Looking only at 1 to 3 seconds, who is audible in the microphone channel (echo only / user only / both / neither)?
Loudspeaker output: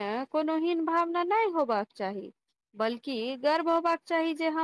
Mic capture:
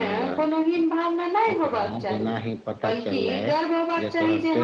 both